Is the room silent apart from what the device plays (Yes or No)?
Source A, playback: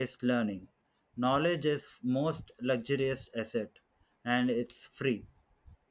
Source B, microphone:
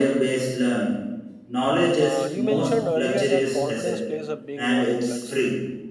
No